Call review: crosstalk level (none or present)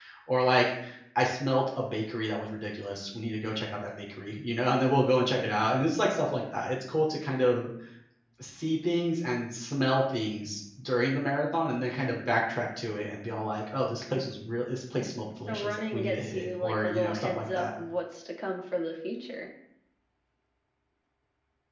present